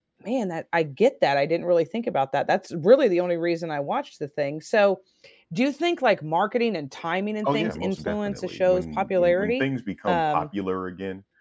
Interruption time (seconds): 7.4 s

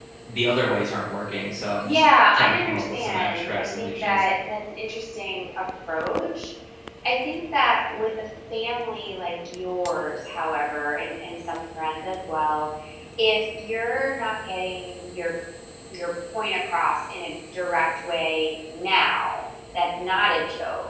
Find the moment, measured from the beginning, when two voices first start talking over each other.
1.8 s

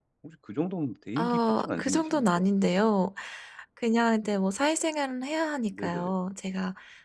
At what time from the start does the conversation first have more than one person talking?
1.2 s

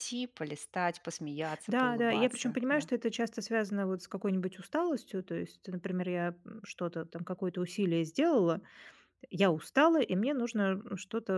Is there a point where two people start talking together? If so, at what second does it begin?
1.4 s

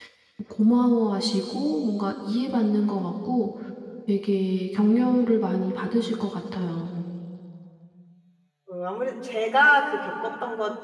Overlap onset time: none

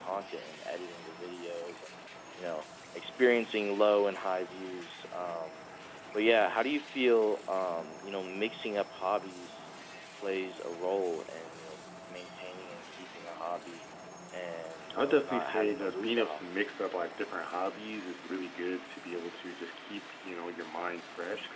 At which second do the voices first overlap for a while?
15.0 s

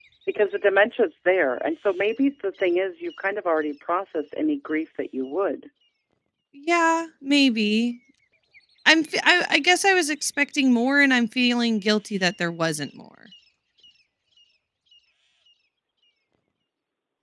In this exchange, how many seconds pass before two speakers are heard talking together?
none

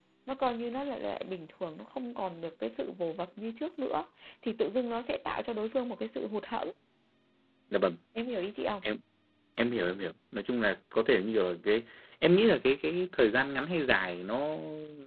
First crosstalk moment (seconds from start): none

